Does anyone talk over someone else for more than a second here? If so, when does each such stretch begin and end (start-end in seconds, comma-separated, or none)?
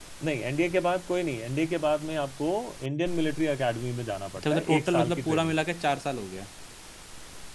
4.4-5.6